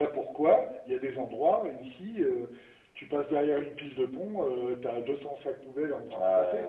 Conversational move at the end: taking over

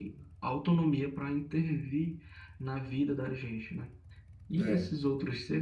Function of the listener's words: listening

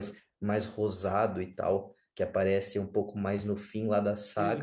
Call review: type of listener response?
taking over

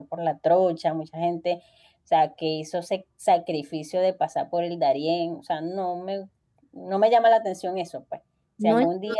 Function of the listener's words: listening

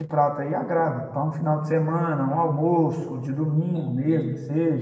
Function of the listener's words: listening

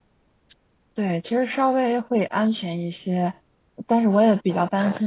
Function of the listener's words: listening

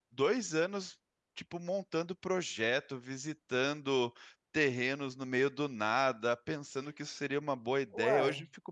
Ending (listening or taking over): listening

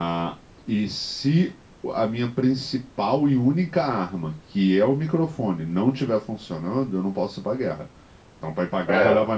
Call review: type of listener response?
listening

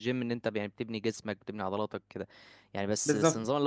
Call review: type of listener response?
listening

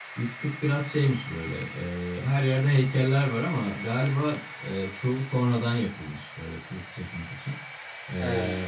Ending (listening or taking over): listening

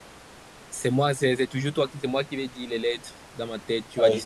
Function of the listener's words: taking over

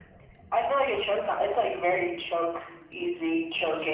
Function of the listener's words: taking over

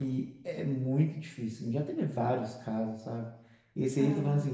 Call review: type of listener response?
listening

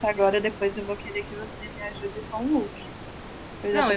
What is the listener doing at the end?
taking over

